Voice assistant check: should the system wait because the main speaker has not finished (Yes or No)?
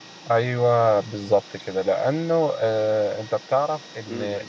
Yes